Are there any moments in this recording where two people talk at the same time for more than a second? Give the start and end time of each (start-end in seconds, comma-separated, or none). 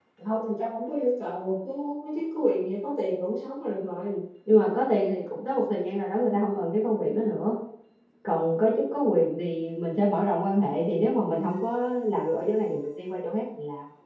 none